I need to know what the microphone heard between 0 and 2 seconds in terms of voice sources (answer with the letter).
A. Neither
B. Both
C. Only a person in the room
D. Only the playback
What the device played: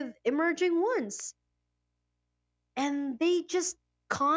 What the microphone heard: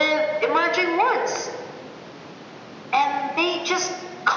D